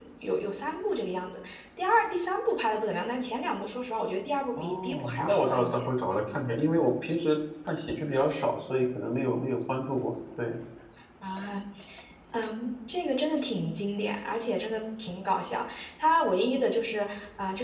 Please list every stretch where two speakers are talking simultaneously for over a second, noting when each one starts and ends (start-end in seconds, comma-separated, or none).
4.6-5.9